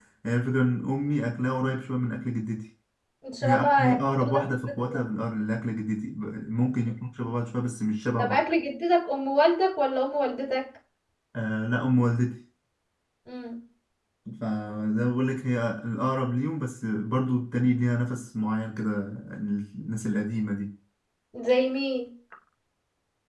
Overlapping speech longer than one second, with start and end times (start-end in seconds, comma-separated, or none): 3.4-5.0